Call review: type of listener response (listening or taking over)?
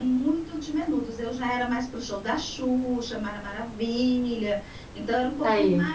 listening